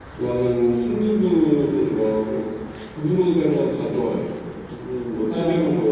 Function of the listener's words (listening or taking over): listening